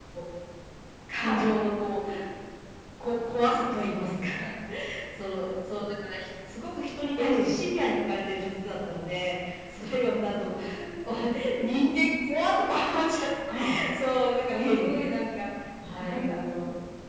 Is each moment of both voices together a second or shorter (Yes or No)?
Yes